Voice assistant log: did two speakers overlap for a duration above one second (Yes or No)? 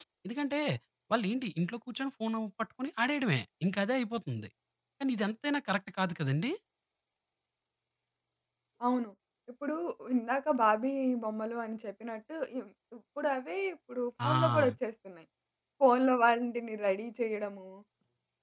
No